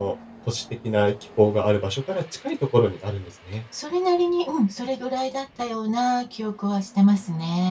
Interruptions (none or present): none